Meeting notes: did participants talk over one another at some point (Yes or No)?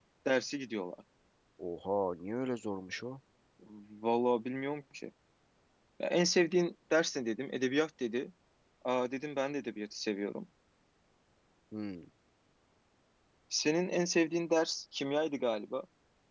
No